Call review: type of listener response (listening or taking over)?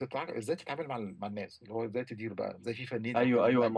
taking over